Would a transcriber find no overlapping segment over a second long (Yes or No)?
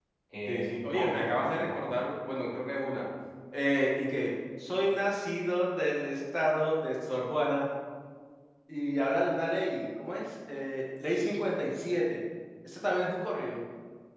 No